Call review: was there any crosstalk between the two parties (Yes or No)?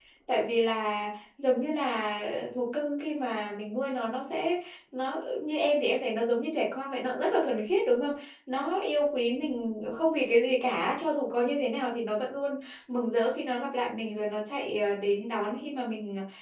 No